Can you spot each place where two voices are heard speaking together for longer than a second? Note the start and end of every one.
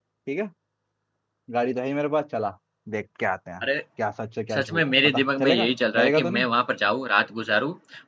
4.5-6.5

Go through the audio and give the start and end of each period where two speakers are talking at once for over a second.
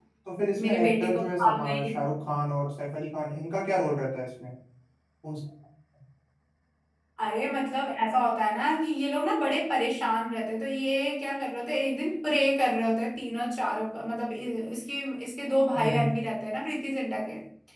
0.5-2.1

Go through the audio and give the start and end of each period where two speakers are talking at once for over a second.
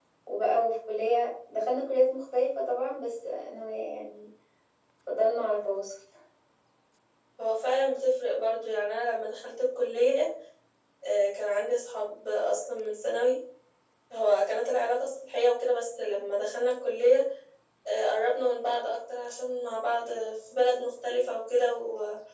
none

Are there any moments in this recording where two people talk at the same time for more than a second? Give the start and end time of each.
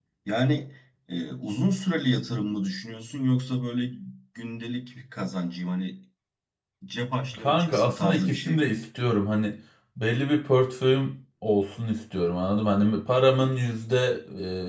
7.4-8.8

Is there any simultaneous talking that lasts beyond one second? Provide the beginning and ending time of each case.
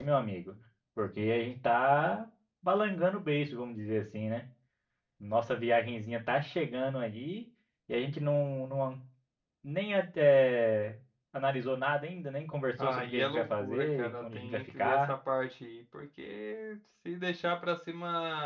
12.8-15.1

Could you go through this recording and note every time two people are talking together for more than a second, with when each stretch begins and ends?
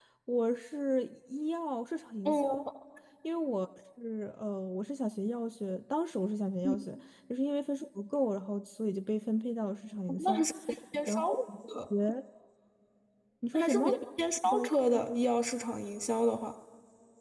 none

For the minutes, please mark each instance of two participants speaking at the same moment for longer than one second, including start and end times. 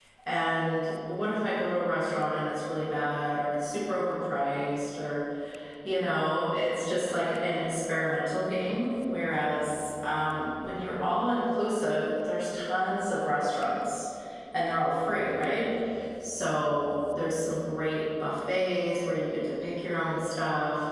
none

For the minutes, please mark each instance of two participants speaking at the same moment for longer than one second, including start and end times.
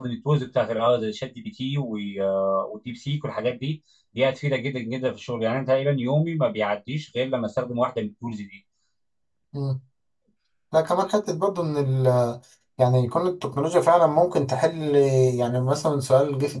none

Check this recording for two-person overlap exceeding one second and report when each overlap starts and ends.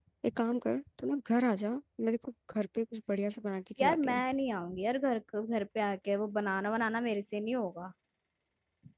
none

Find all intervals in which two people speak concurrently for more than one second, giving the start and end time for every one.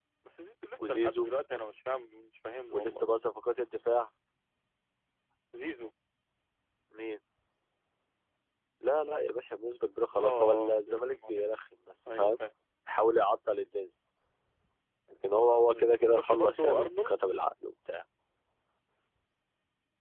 10.2-11.4, 15.7-17.2

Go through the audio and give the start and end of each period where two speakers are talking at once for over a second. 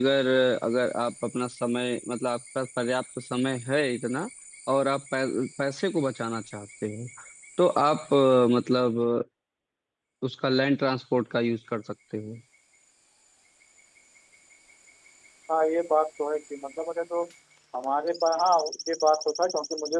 none

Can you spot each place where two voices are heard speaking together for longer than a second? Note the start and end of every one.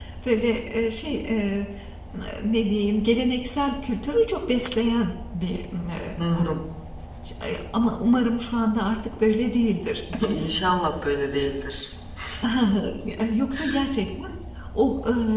none

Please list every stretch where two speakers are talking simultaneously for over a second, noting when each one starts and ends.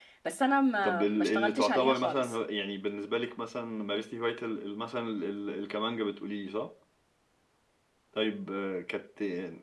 0.8-2.4

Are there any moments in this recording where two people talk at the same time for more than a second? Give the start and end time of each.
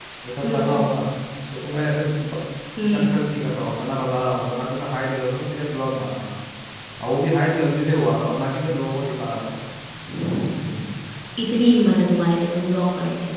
none

